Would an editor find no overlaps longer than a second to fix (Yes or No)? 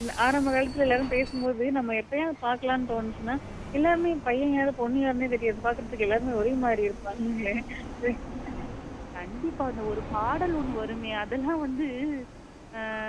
Yes